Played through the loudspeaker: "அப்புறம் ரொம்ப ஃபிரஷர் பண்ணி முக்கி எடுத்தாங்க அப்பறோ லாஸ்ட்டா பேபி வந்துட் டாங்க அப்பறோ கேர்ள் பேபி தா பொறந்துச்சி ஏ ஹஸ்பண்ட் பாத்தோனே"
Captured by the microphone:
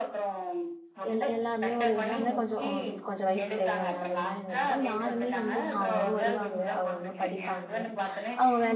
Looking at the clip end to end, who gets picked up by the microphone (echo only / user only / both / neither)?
both